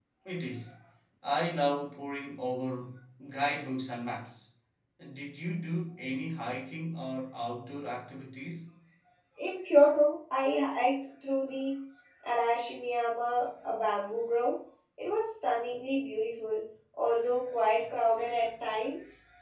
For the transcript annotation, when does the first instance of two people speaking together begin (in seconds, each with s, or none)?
none